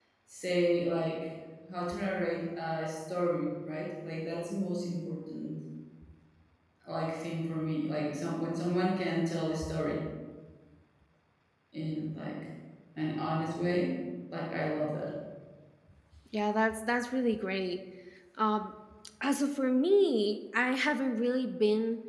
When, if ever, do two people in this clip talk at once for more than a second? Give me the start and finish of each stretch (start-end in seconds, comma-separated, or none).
none